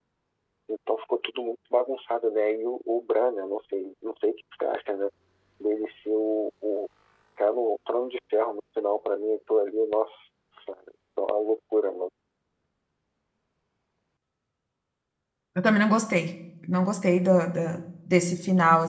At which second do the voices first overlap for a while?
none

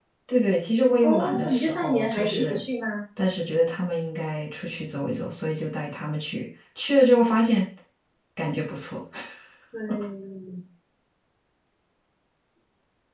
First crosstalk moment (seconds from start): 1 s

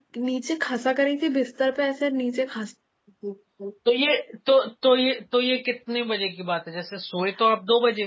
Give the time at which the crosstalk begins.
none

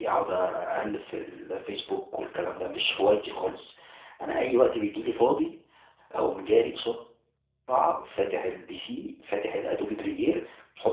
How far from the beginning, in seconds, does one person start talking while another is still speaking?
none

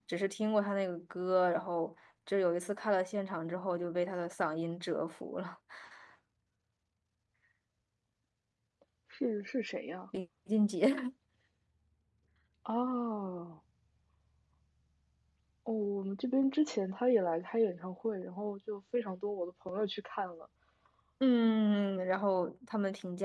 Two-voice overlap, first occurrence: none

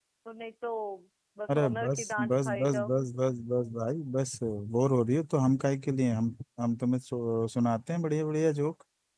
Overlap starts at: 1 s

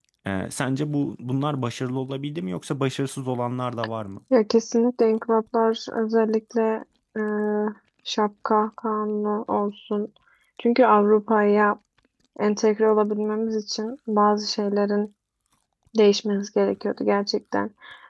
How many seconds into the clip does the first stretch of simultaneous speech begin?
none

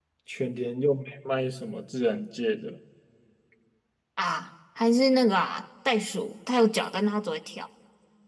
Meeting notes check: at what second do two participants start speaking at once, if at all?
none

